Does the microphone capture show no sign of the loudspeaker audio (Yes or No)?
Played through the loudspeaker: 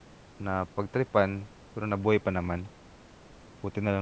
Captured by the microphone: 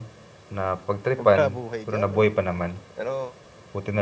No